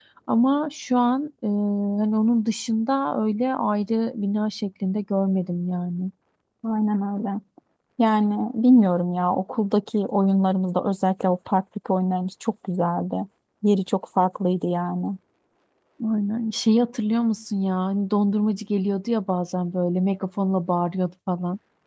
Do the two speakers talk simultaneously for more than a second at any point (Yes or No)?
No